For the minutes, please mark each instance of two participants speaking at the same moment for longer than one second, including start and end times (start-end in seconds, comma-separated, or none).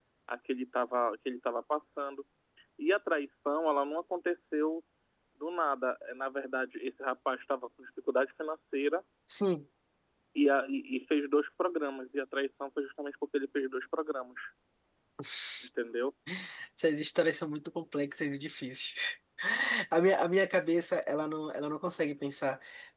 none